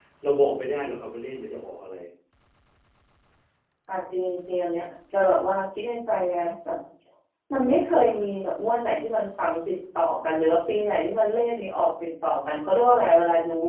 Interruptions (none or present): none